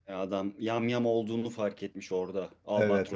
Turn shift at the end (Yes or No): Yes